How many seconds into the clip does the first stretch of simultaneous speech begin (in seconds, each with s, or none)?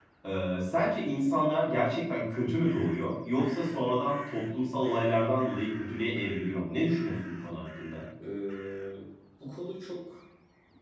none